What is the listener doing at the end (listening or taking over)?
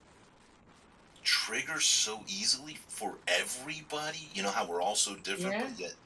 listening